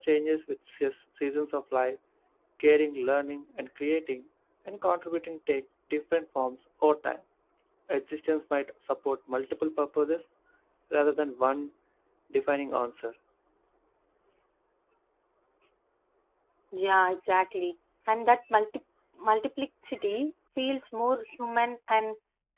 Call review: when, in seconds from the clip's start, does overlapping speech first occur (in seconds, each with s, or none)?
none